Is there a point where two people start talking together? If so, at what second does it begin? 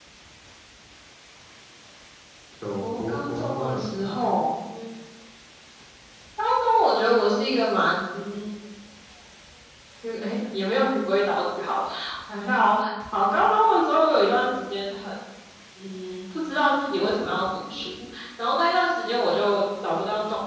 2.8 s

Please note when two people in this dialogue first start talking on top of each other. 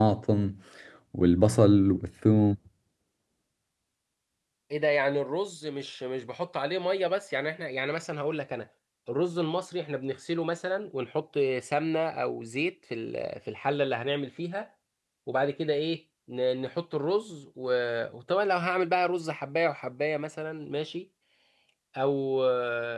none

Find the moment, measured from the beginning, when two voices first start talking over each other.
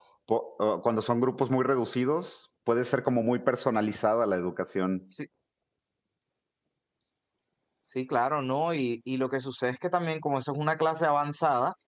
none

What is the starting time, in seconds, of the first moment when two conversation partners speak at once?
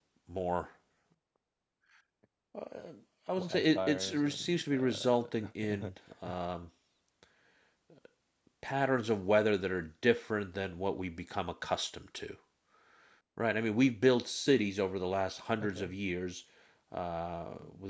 3.4 s

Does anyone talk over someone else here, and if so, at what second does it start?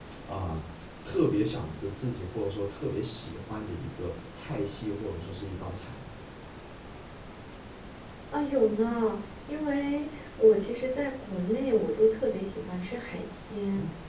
none

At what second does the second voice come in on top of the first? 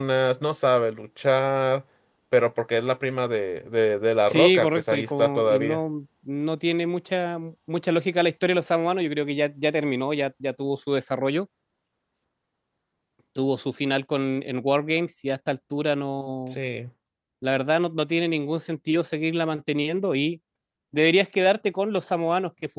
4.3 s

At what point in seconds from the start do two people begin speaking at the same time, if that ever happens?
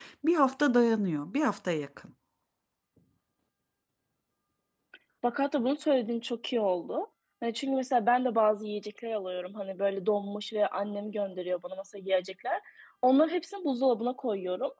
none

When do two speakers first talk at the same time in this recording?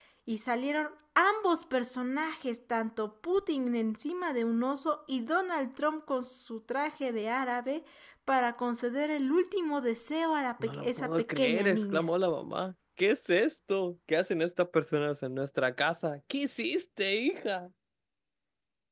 10.6 s

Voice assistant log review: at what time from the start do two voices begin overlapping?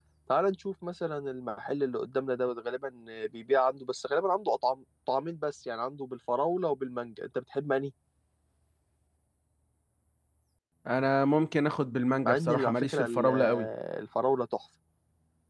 12.2 s

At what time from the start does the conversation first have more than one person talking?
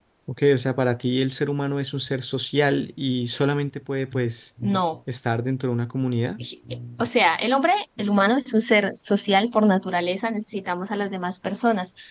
none

